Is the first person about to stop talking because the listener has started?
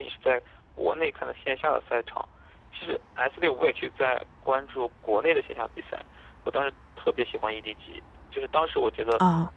No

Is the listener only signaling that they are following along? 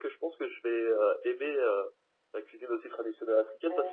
Yes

